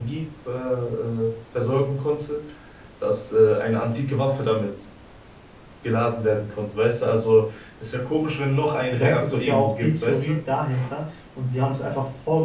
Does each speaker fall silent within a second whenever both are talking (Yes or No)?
No